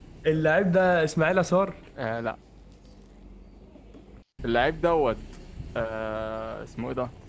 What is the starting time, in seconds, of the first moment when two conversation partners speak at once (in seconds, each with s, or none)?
none